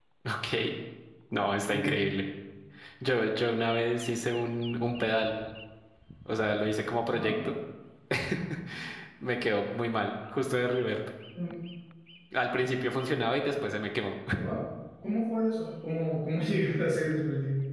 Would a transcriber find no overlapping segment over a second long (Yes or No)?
Yes